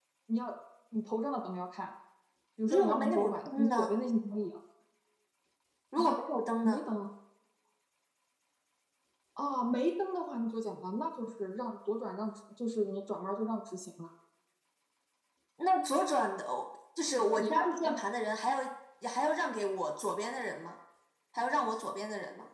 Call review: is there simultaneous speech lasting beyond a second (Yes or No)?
Yes